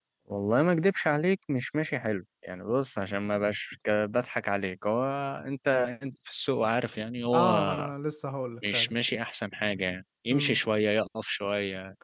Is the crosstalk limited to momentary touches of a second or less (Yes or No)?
Yes